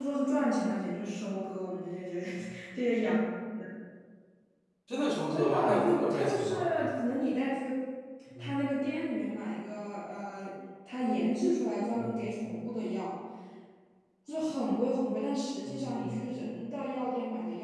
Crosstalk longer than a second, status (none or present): present